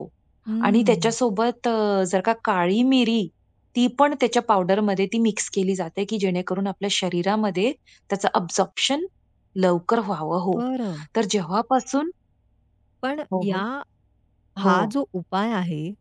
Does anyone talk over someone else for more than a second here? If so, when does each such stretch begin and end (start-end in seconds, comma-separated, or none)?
none